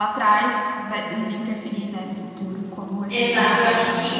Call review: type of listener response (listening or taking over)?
taking over